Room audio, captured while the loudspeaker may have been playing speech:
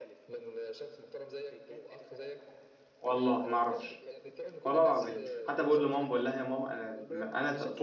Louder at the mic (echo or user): user